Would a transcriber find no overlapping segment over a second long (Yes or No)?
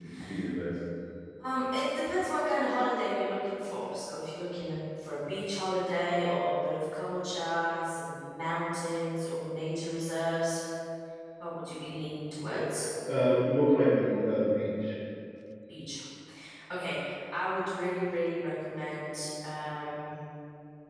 Yes